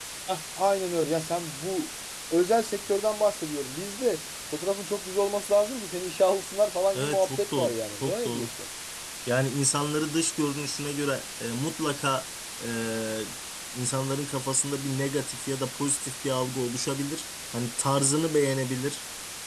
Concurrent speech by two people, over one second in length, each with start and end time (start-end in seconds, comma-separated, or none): 6.9-8.5